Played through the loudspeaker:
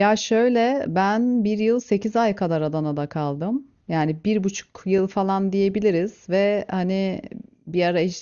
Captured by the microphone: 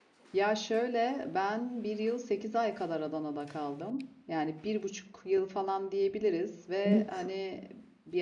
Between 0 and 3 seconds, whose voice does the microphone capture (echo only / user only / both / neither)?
echo only